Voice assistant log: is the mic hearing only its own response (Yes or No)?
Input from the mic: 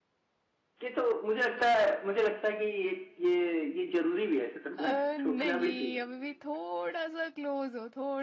No